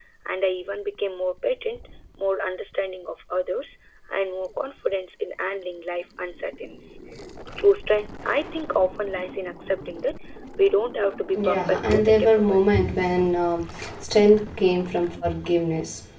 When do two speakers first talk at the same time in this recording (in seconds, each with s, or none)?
11.4 s